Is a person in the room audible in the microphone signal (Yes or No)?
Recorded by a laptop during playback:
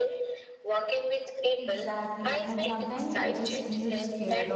Yes